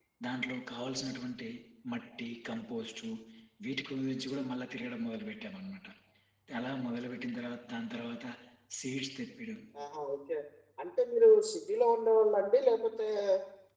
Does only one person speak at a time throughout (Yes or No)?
Yes